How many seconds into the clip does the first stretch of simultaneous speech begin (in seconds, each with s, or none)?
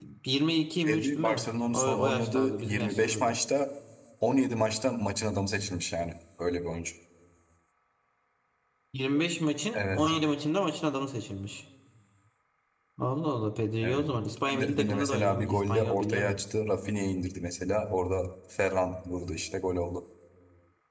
0.8 s